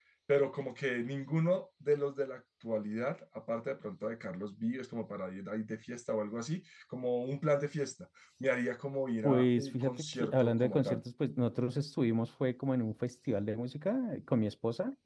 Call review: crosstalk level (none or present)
present